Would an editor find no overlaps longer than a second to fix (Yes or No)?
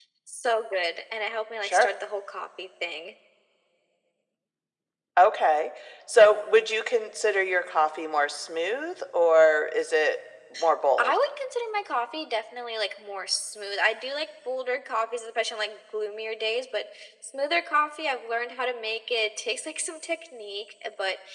Yes